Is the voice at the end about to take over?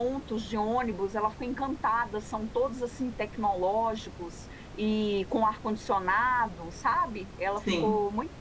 No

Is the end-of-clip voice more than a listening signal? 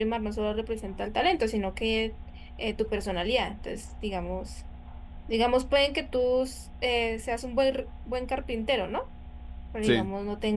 No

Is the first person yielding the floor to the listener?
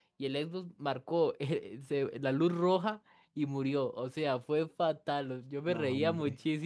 No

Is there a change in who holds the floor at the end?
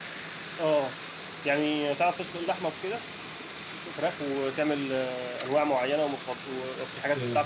Yes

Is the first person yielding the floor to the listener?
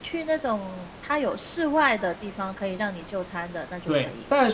Yes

